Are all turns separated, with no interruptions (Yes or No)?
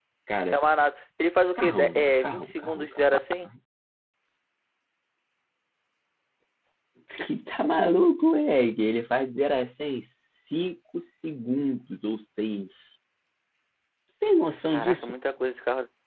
No